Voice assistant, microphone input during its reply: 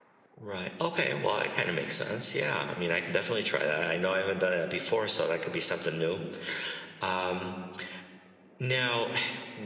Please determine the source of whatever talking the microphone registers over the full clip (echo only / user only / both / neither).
echo only